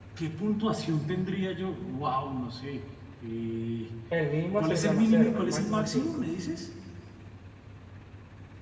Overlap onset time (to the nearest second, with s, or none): 5 s